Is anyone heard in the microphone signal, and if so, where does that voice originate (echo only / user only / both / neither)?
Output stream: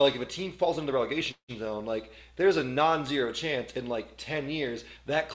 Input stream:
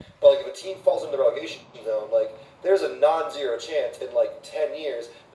echo only